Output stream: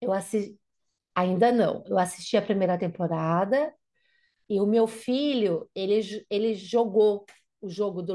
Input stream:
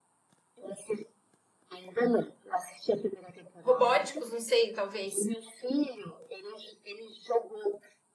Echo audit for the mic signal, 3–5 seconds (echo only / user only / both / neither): both